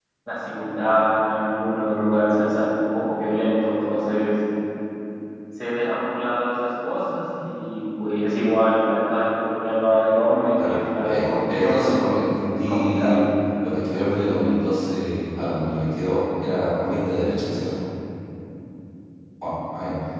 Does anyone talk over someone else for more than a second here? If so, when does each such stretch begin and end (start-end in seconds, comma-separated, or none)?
10.6-13.2